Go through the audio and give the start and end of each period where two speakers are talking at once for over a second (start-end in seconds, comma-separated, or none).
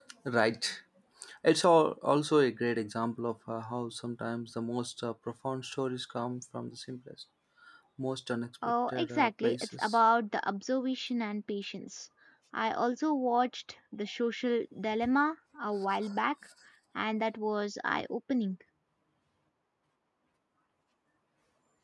8.7-10.0